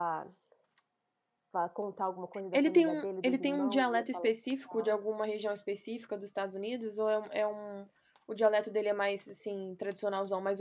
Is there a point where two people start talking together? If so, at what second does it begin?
3 s

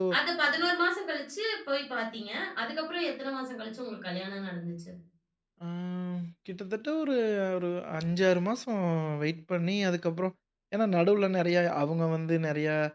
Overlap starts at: none

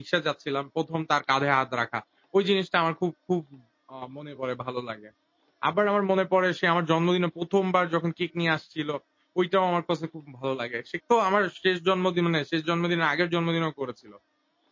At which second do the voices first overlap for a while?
none

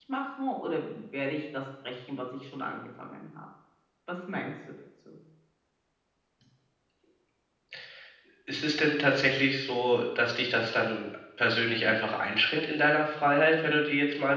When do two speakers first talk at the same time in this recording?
none

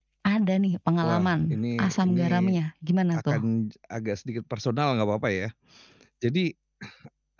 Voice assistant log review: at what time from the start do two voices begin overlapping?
1 s

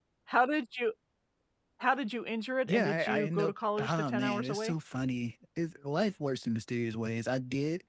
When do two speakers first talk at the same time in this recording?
3 s

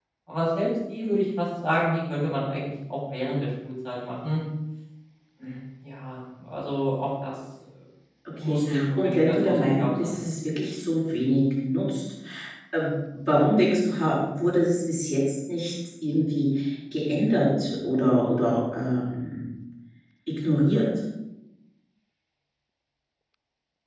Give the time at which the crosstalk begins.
8 s

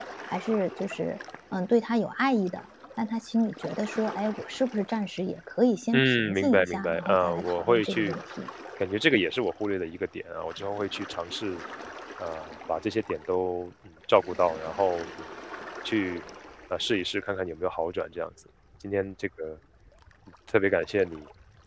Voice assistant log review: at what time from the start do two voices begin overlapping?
6 s

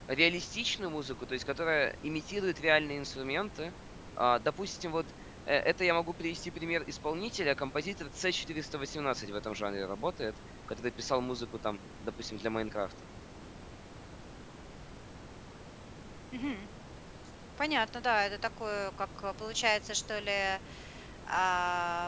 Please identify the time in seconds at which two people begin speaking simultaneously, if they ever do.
none

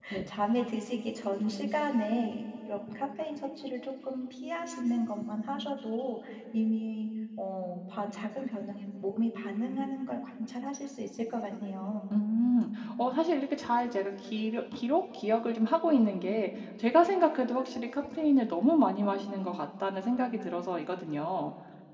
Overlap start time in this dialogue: none

